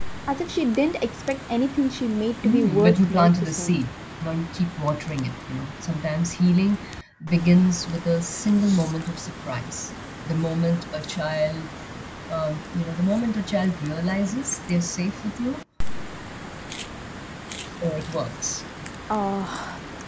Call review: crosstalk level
present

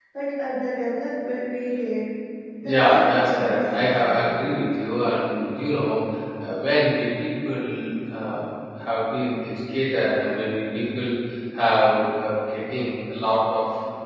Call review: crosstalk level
present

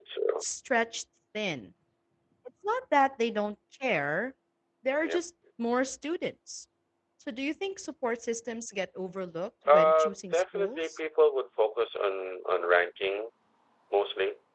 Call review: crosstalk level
present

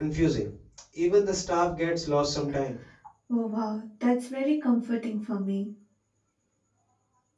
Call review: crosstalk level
none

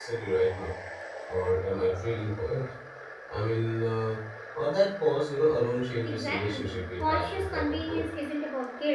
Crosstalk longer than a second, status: present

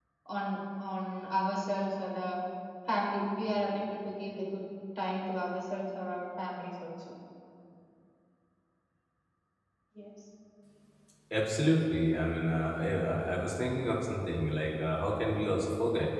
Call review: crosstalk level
none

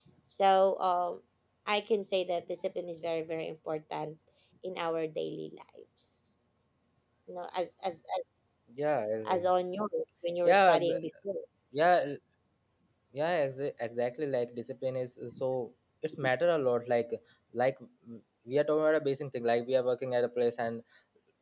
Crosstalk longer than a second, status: none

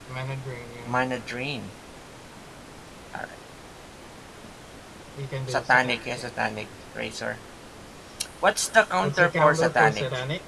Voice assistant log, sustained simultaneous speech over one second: present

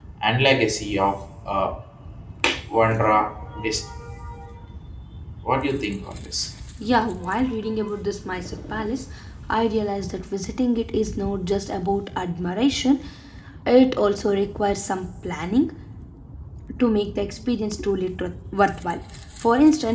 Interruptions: none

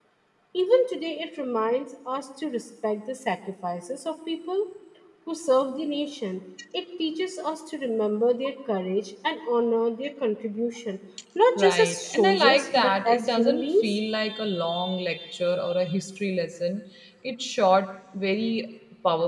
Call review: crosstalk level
present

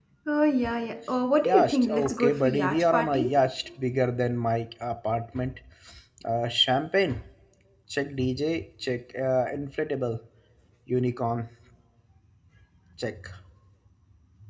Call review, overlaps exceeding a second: present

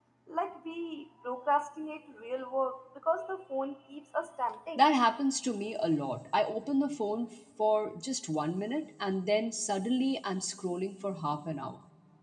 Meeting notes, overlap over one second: none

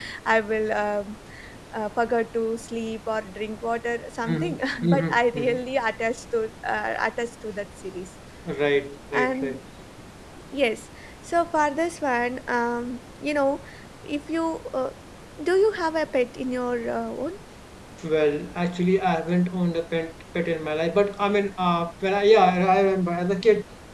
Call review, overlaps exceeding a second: present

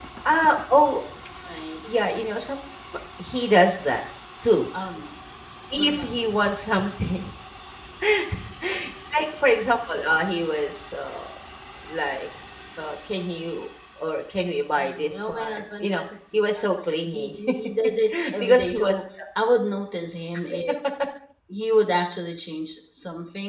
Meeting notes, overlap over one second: present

